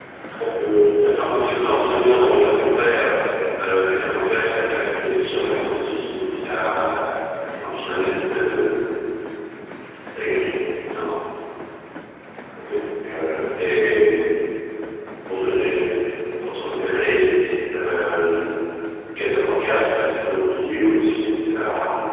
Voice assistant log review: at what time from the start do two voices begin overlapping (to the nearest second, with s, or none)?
1 s